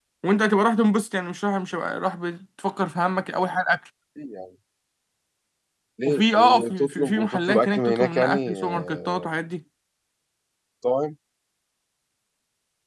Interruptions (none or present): present